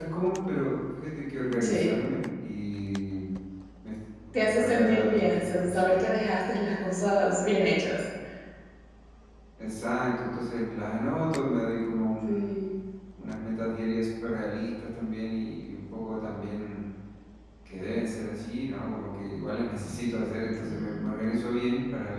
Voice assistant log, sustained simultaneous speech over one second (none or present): present